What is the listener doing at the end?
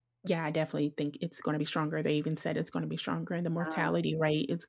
listening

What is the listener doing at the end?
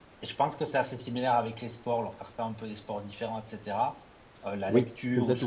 listening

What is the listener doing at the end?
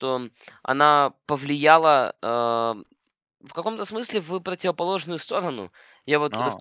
listening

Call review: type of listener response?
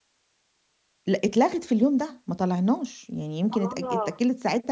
listening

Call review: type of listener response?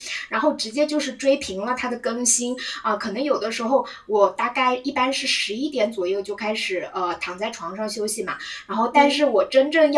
listening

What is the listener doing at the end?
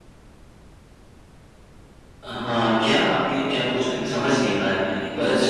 taking over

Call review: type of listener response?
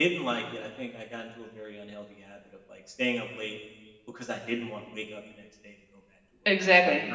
taking over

